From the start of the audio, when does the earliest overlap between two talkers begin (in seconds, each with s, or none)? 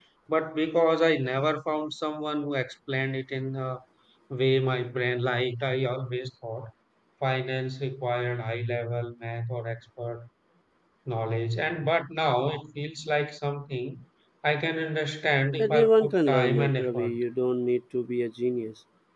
15.6 s